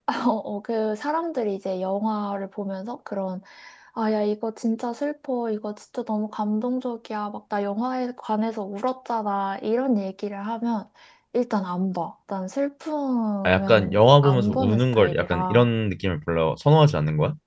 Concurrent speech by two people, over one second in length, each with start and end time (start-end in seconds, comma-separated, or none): 13.4-15.7